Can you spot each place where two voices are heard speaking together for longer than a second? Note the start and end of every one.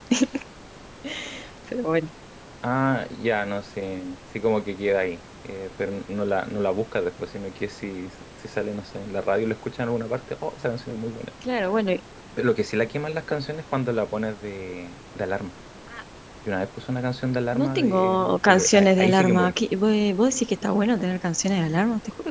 17.5-19.6

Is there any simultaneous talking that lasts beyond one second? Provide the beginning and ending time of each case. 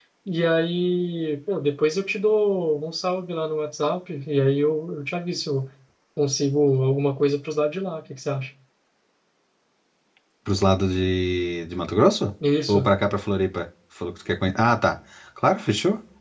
none

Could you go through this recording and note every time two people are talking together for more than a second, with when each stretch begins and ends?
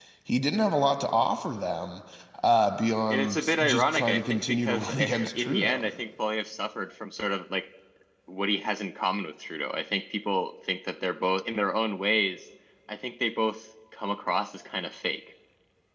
3.1-5.9

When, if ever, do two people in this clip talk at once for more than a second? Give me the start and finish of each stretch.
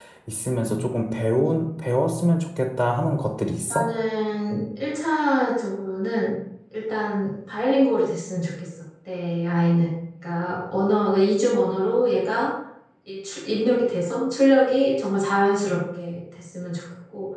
none

